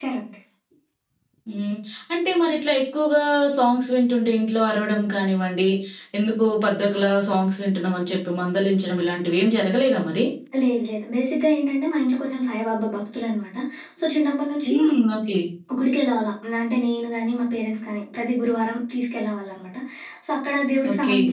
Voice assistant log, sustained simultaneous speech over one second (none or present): none